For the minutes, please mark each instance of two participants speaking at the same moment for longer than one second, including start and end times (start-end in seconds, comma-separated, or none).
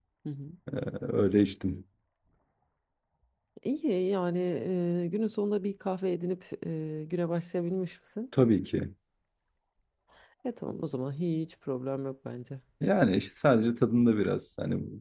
none